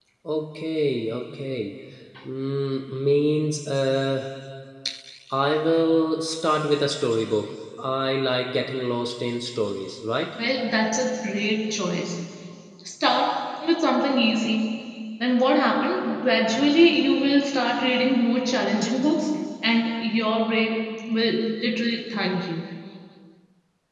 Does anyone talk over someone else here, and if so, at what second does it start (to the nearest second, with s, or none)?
none